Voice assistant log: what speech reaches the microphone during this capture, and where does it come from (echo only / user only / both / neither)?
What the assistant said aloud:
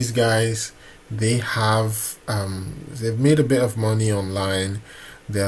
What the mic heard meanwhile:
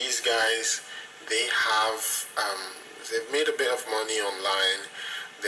echo only